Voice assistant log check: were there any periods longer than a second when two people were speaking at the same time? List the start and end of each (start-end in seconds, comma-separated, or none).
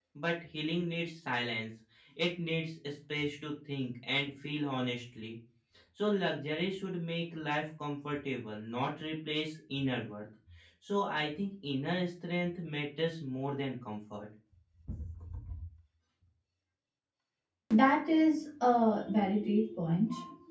none